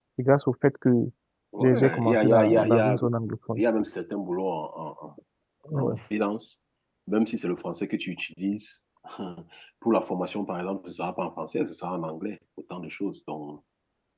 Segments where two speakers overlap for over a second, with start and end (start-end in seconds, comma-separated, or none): 1.6-3.0